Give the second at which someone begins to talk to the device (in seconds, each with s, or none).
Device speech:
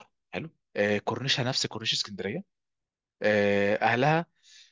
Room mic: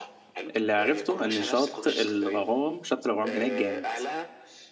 0.6 s